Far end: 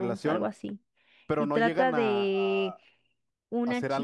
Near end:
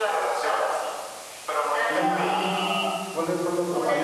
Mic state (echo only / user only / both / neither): both